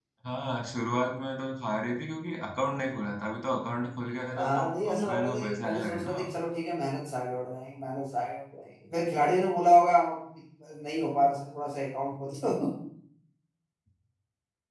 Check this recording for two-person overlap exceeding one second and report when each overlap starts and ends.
4.3-6.2

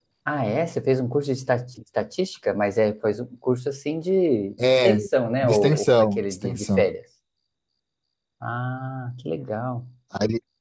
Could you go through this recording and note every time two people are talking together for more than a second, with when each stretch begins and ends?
5.4-6.8

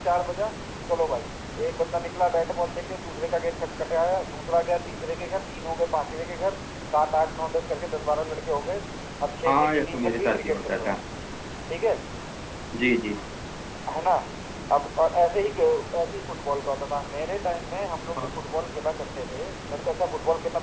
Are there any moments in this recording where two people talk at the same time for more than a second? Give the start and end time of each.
9.5-10.9

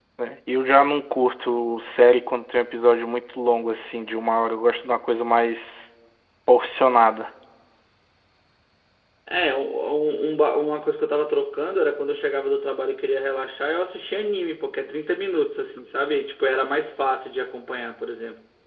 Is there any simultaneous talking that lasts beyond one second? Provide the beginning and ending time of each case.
none

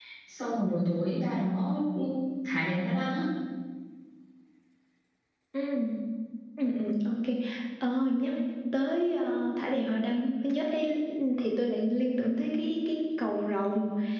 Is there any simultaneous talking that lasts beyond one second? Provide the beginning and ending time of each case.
none

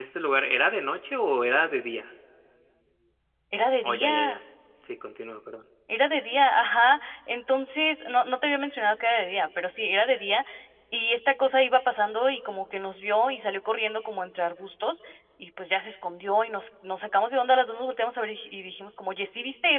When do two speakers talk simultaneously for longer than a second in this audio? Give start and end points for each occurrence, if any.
none

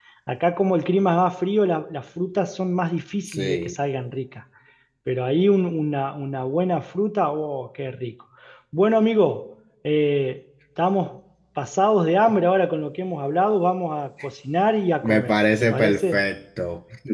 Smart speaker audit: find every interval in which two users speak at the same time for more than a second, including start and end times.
15.0-16.2

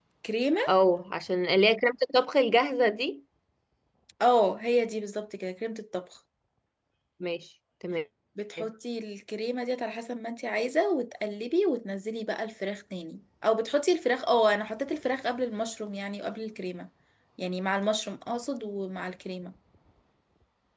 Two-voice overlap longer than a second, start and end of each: none

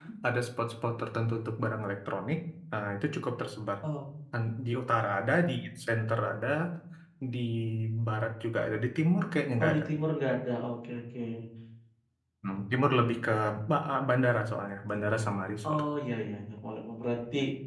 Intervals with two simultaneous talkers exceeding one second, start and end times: none

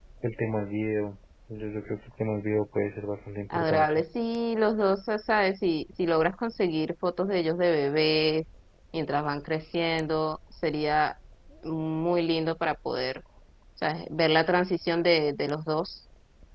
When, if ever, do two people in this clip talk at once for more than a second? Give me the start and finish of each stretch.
none

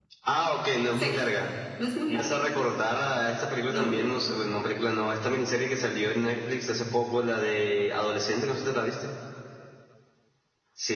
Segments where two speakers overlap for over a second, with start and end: none

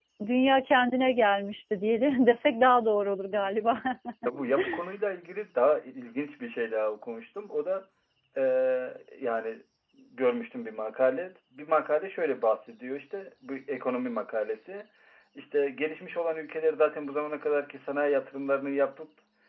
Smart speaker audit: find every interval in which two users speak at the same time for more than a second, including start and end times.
none

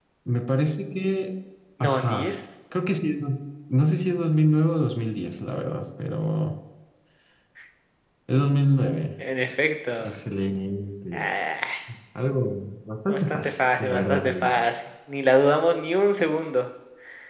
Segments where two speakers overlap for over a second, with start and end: 13.1-14.5

